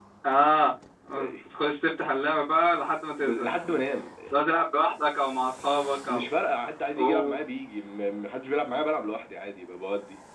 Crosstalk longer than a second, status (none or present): none